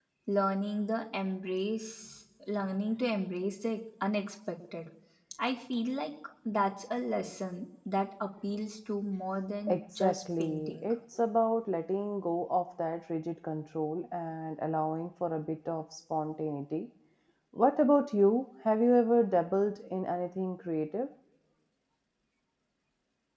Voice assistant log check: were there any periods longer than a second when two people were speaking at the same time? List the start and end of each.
9.7-10.9

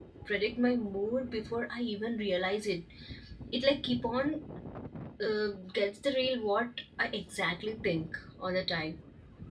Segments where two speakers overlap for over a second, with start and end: none

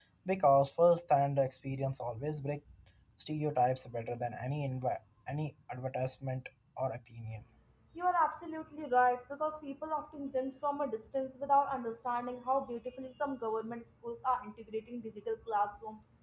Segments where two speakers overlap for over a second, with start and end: none

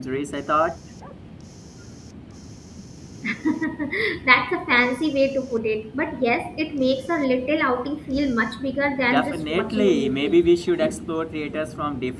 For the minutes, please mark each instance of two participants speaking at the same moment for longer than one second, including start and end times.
9.1-10.4

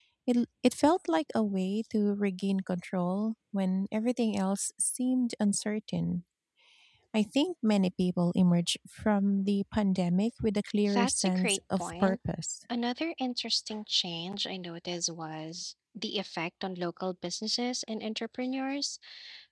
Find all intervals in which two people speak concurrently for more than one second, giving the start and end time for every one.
10.9-12.2

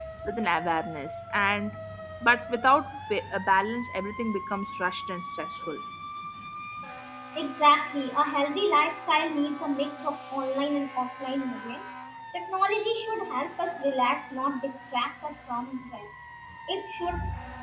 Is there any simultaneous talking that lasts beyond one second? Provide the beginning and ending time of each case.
none

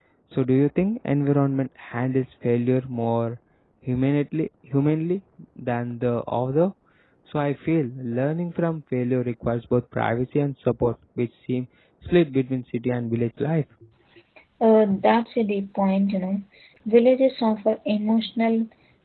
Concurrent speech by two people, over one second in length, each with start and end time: none

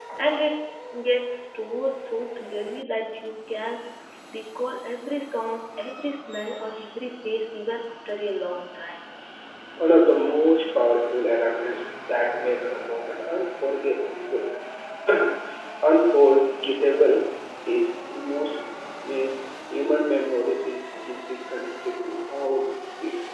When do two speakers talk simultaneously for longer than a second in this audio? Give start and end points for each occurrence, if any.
none

